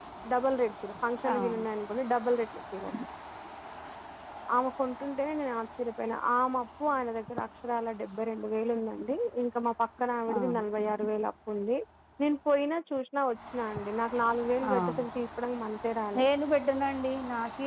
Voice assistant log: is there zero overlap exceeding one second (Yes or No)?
Yes